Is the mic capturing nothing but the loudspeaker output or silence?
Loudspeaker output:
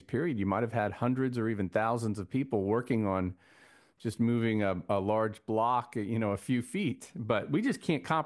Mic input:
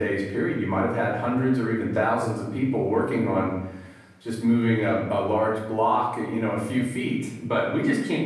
Yes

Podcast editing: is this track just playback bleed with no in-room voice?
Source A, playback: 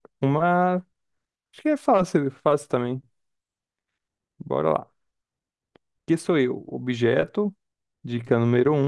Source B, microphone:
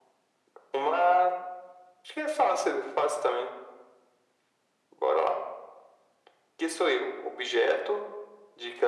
Yes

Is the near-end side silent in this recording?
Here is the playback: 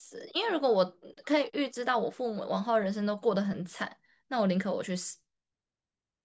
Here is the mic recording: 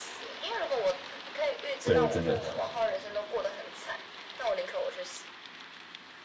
No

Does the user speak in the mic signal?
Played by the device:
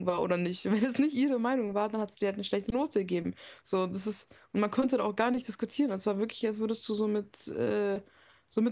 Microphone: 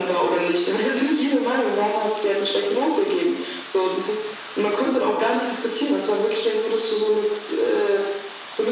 No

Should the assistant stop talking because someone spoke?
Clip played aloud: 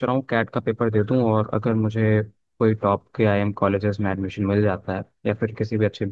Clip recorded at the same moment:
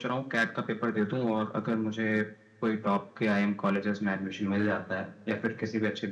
No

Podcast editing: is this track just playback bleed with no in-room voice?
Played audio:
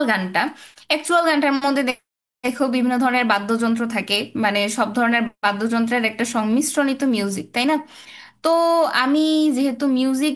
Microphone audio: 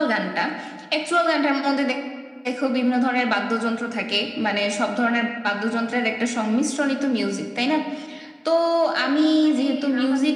No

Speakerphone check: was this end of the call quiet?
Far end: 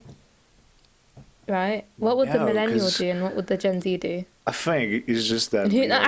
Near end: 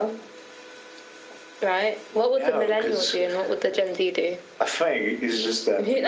No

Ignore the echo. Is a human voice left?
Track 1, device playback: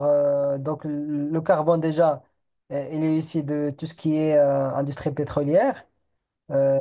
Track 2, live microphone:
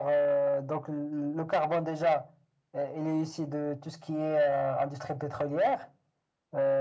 No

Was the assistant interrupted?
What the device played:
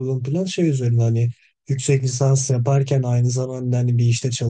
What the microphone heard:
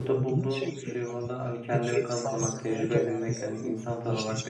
Yes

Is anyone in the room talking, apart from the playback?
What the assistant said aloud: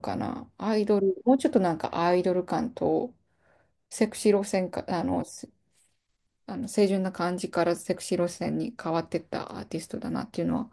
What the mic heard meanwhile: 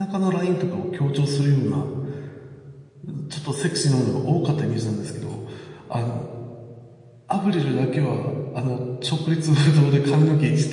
Yes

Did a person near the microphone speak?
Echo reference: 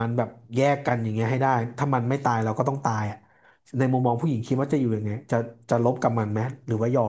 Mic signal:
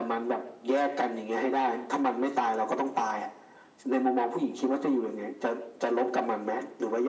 No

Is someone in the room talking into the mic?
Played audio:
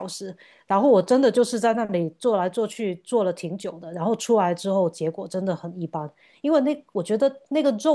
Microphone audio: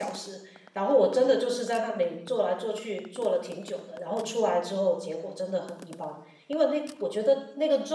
No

